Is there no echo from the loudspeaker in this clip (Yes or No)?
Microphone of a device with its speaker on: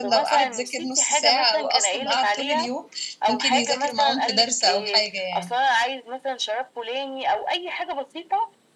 No